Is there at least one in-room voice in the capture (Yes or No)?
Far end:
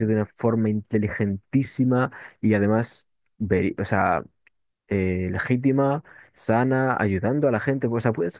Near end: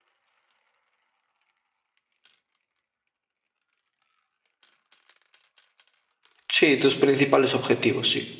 Yes